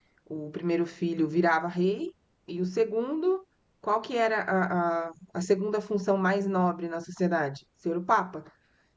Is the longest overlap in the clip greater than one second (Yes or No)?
No